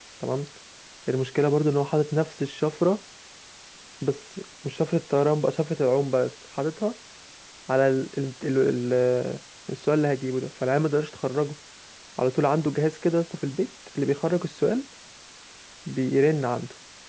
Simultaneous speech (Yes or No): No